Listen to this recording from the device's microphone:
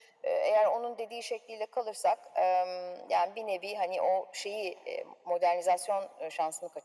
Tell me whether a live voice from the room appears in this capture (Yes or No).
No